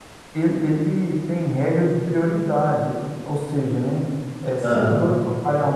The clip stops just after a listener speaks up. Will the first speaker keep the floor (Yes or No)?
Yes